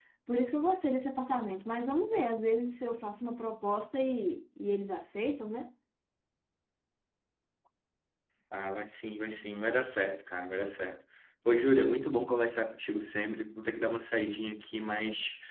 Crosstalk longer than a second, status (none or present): none